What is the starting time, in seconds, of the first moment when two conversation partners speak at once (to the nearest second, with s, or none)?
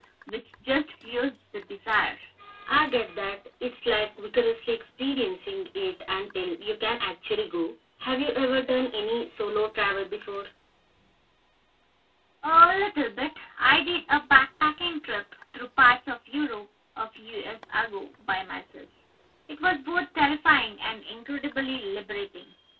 none